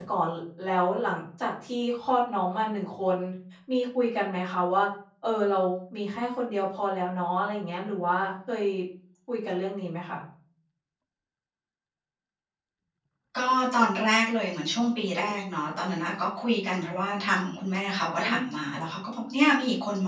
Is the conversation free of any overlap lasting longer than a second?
Yes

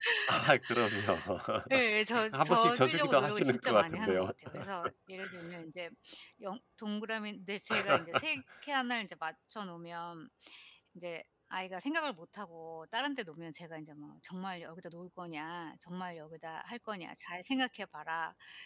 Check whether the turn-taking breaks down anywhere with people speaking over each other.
Yes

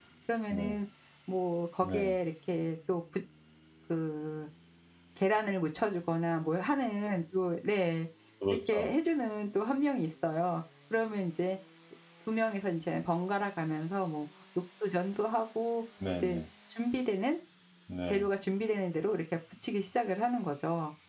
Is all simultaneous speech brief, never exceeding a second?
Yes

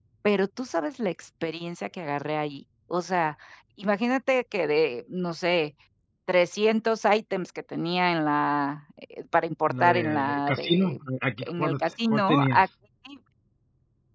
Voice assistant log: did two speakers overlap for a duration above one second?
Yes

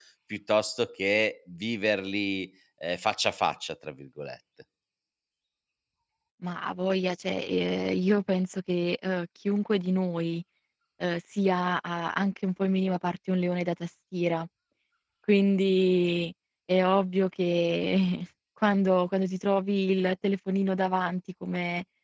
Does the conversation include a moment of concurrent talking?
No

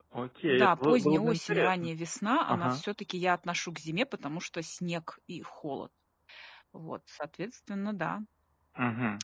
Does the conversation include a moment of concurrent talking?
Yes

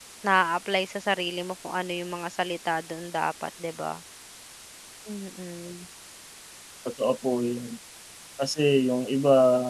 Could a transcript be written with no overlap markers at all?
Yes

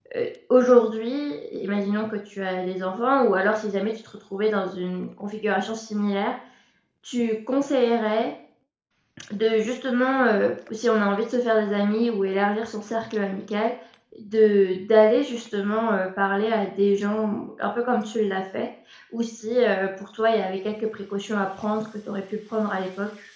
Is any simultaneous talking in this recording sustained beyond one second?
No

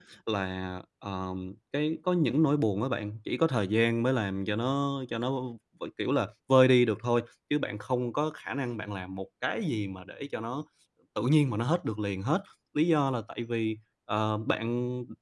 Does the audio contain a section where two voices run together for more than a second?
No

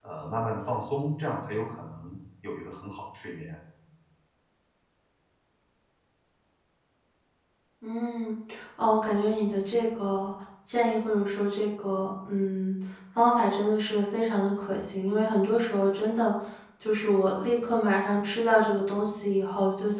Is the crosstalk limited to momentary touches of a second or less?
Yes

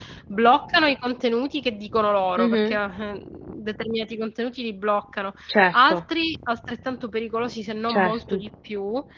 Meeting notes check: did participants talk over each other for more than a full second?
No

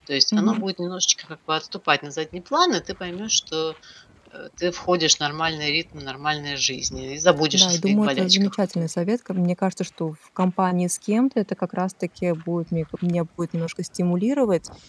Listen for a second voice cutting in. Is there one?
Yes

